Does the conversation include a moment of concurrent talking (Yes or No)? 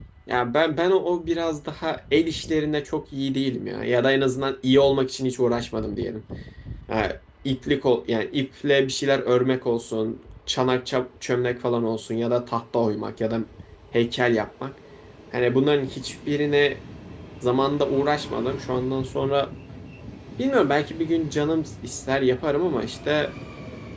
No